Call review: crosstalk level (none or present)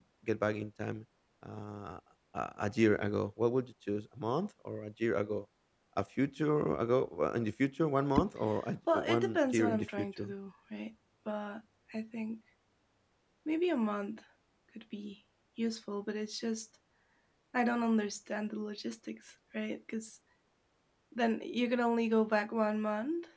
present